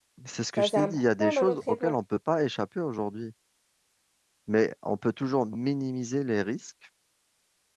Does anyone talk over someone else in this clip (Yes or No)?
Yes